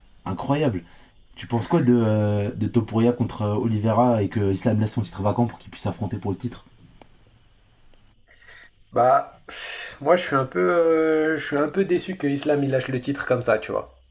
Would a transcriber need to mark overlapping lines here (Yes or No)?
No